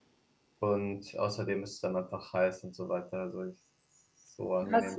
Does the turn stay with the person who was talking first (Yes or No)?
No